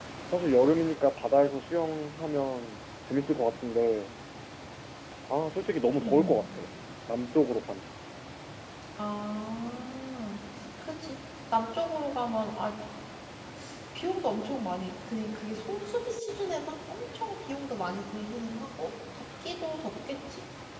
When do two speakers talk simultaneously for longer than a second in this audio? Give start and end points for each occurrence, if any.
none

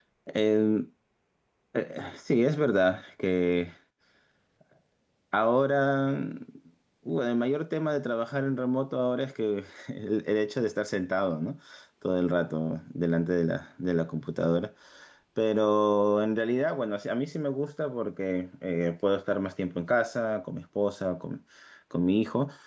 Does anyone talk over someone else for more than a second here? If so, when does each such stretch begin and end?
none

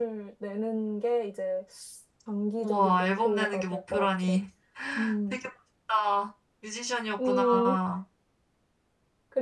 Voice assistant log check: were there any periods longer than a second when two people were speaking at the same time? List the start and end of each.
2.6-4.3

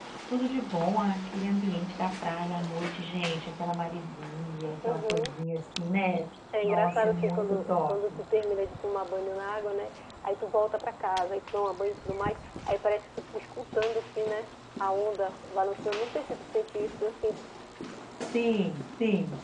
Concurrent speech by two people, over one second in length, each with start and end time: 6.6-8.2

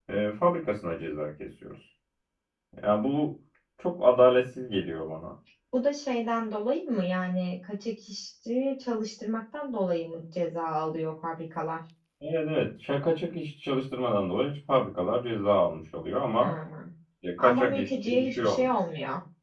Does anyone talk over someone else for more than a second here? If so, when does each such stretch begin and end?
17.4-18.7

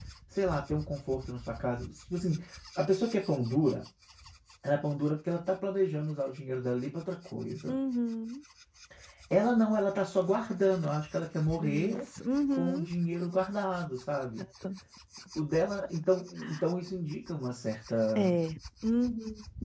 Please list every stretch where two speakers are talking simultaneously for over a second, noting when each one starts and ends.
none

